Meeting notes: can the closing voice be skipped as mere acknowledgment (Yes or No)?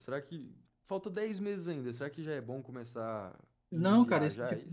No